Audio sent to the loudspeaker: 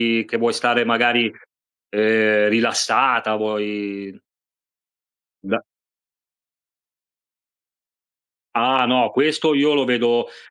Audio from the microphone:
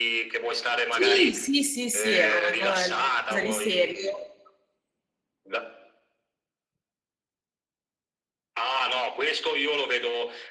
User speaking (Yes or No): Yes